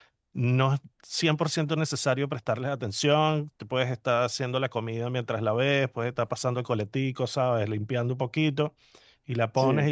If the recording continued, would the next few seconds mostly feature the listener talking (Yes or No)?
No